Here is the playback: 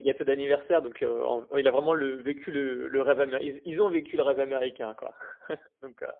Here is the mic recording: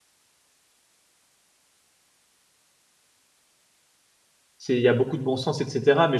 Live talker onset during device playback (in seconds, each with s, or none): 4.6 s